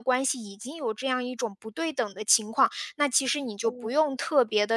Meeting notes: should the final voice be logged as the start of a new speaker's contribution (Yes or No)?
No